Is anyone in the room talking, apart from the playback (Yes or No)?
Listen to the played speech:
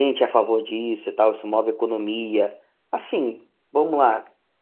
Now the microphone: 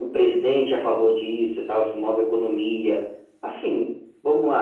No